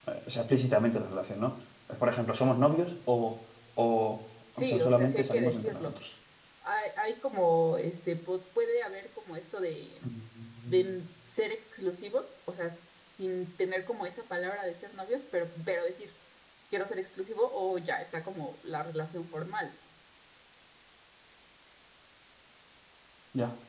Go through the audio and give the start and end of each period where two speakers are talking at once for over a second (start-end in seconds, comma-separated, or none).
4.6-5.9